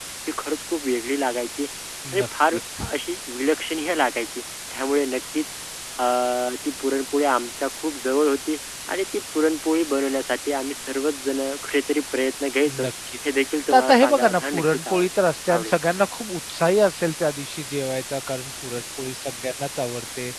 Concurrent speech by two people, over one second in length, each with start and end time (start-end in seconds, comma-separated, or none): 13.7-15.1